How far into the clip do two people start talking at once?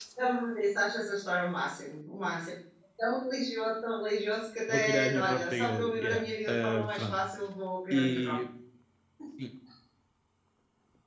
4.7 s

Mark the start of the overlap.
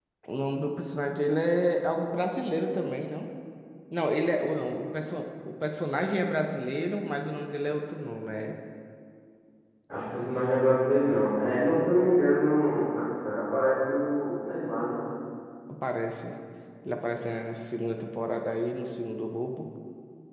none

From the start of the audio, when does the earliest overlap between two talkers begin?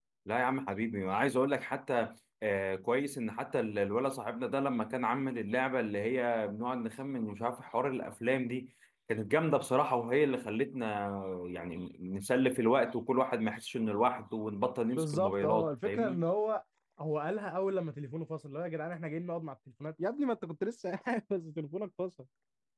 15.0 s

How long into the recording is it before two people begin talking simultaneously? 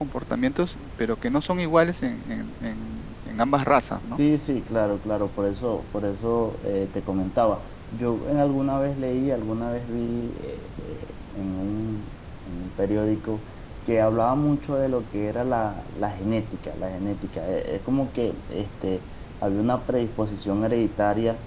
none

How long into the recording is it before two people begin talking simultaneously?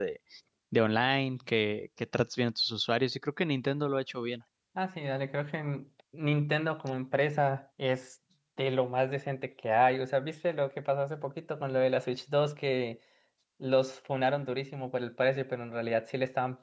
none

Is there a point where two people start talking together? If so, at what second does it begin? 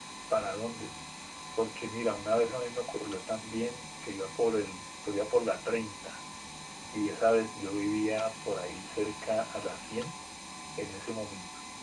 none

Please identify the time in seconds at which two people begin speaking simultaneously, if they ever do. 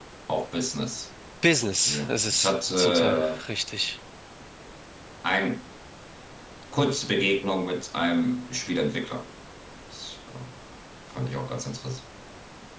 1.9 s

